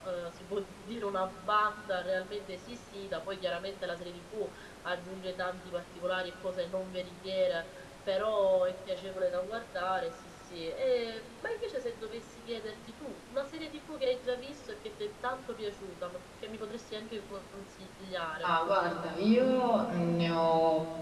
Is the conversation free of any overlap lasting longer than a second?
Yes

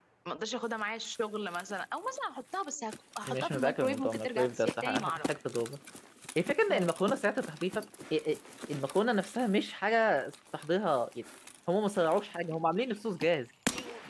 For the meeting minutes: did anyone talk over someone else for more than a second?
Yes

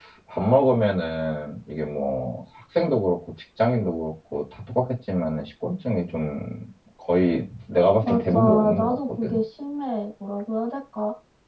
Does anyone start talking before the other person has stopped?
Yes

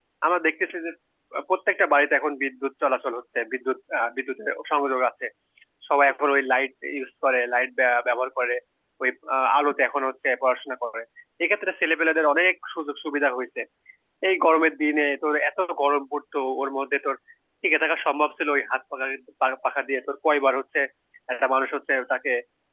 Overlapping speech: No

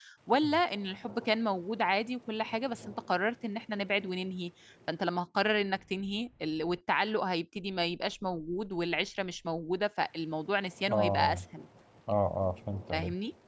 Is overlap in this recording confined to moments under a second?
Yes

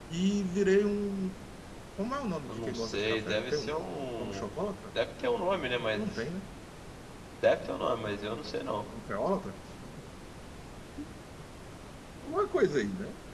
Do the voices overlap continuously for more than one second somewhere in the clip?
Yes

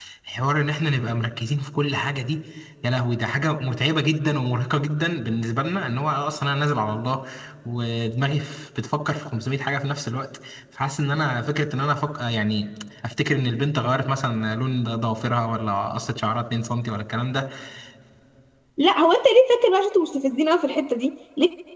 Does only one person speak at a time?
Yes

